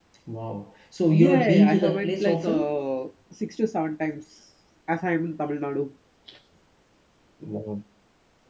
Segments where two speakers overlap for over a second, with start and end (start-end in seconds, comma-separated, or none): 1.1-2.8